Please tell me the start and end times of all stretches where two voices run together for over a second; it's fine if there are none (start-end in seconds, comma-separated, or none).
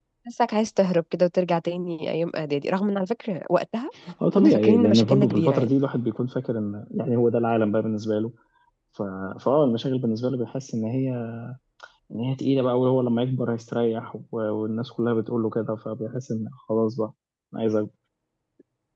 4.3-5.8